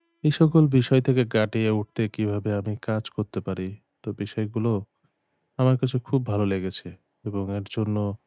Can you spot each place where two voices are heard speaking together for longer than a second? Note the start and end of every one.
none

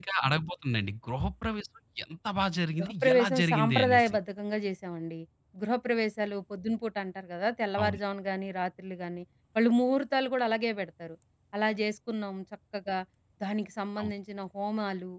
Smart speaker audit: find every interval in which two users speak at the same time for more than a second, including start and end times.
2.8-4.1

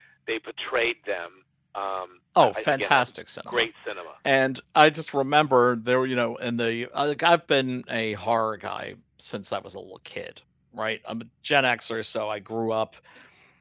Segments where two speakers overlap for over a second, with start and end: 2.4-3.6

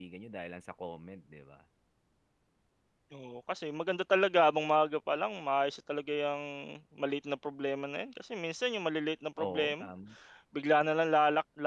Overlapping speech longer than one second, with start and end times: none

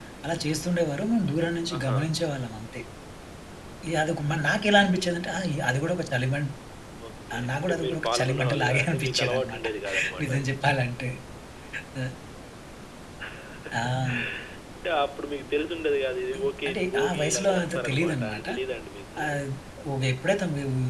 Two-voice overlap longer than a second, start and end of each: 7.3-9.6, 16.3-18.4

